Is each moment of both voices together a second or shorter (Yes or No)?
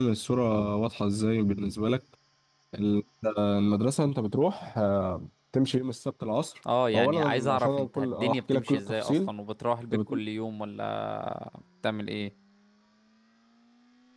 No